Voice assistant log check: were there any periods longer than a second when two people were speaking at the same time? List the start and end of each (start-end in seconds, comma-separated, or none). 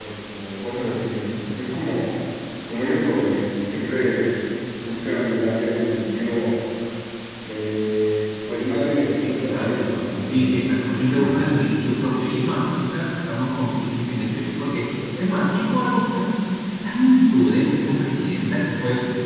9.2-11.4